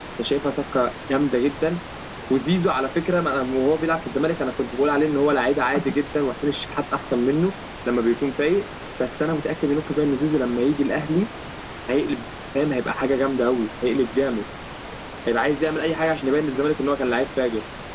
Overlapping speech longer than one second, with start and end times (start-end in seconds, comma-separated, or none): none